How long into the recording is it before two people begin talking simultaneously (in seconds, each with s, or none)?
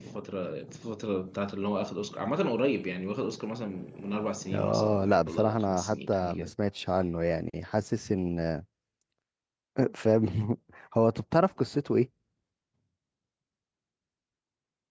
4.5 s